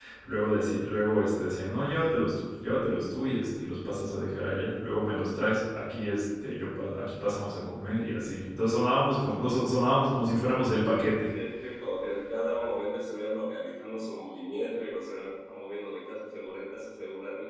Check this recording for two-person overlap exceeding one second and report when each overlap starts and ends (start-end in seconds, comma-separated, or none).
none